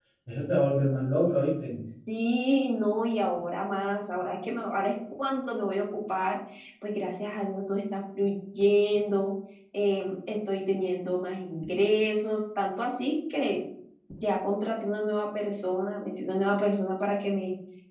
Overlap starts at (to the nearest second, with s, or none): none